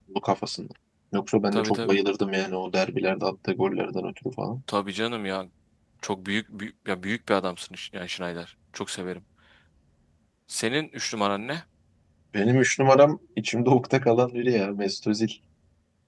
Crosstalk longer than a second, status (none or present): none